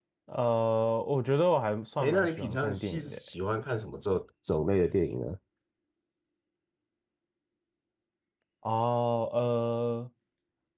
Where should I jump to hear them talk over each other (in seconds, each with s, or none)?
2.0 s